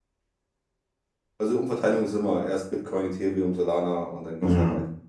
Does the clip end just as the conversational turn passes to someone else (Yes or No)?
Yes